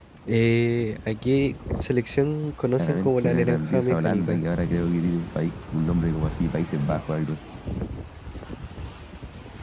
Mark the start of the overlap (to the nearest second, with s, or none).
3 s